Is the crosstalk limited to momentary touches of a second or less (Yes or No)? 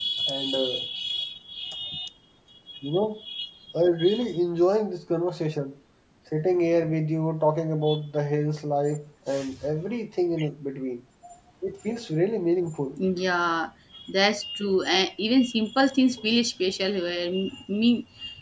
Yes